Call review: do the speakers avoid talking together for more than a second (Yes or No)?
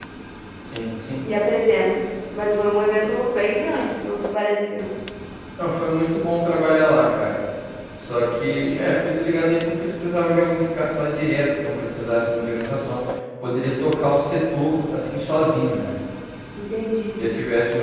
Yes